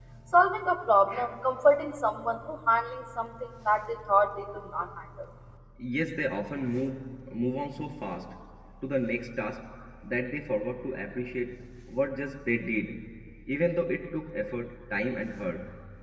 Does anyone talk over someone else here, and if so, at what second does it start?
none

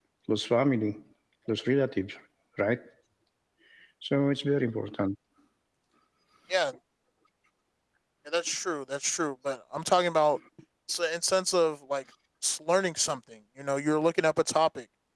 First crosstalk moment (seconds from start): none

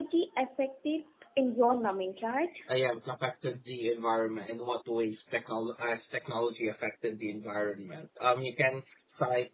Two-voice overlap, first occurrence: none

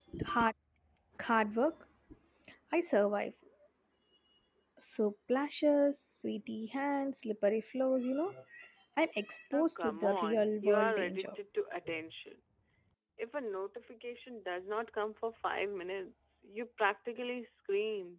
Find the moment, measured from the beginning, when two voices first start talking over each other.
10 s

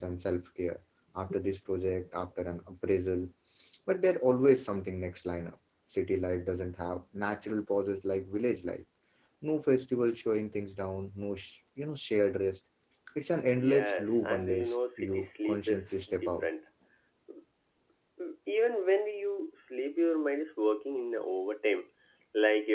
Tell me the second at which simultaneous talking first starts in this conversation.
14 s

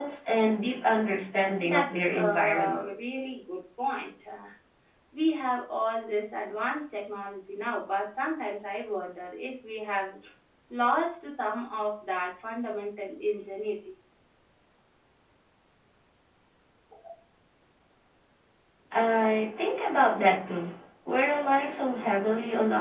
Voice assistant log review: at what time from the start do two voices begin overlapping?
2 s

